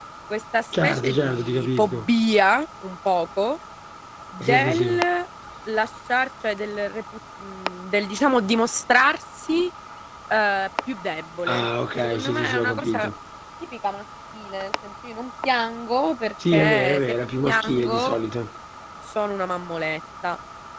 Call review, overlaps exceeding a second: present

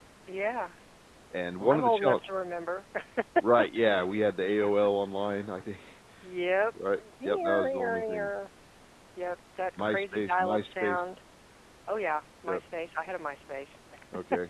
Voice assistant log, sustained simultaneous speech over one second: present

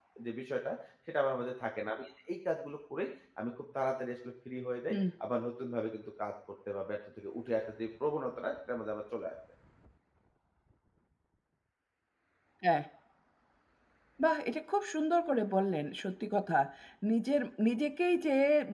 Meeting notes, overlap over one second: none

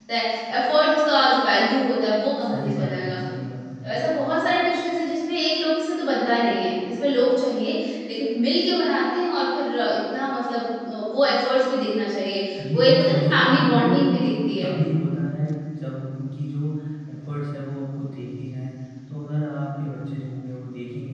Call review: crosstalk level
present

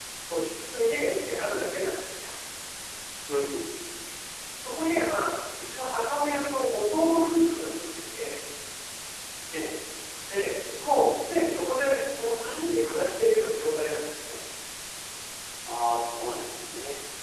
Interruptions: none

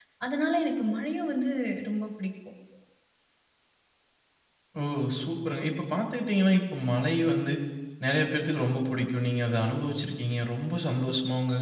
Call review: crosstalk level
none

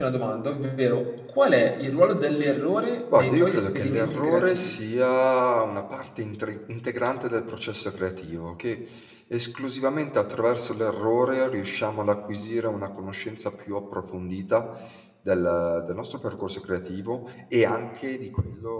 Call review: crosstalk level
present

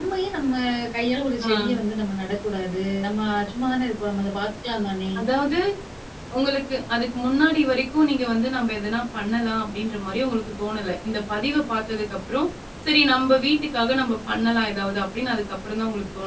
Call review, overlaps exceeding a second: none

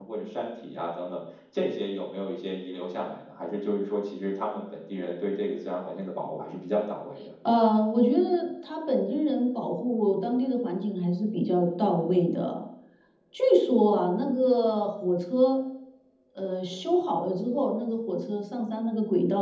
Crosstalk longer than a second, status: none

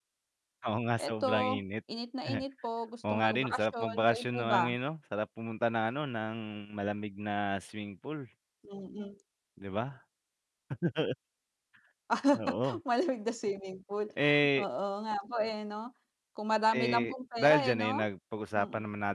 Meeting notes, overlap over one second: present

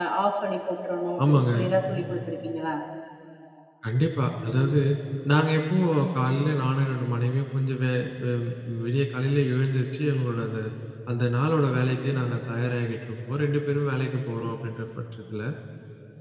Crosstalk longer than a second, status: none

